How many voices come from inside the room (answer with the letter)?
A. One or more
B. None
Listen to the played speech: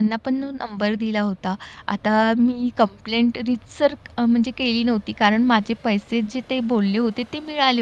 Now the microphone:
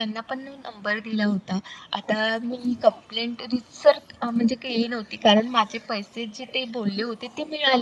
B